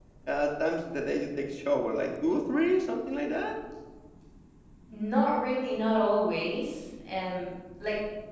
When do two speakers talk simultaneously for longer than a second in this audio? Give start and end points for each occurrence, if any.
none

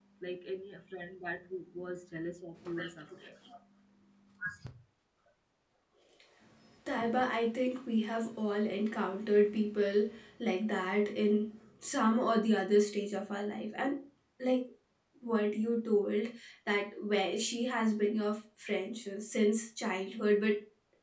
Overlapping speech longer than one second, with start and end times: none

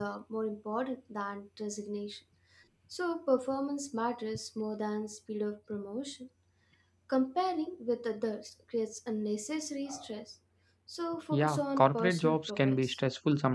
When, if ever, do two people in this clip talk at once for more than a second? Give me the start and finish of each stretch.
11.3-13.0

